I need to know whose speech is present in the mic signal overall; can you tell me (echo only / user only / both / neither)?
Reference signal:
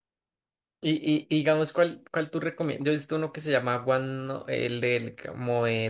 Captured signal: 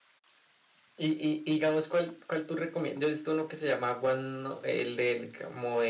echo only